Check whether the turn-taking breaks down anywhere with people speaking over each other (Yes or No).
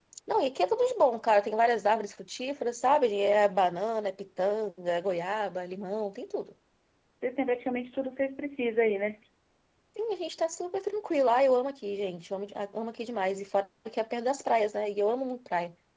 No